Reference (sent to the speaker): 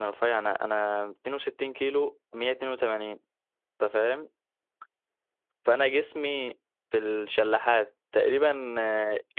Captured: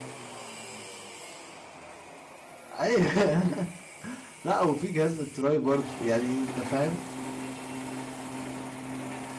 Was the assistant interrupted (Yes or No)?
Yes